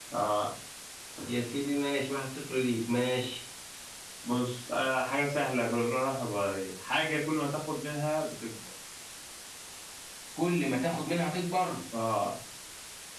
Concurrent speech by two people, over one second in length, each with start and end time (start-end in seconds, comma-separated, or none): none